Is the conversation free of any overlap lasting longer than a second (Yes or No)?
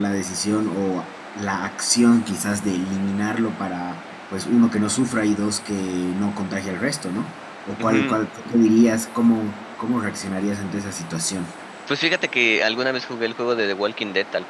Yes